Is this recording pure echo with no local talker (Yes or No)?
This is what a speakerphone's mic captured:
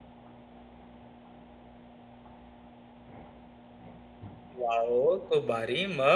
No